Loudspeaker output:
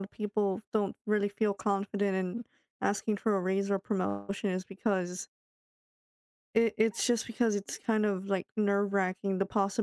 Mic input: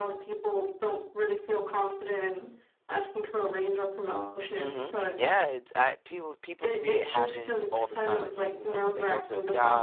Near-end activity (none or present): present